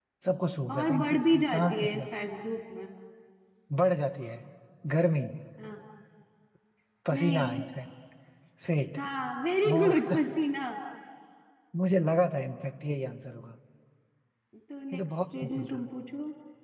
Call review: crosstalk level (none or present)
present